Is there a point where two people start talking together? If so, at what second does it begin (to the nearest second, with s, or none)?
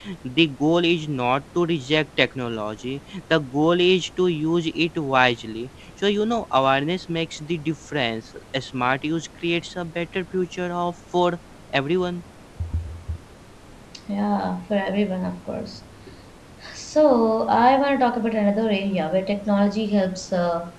none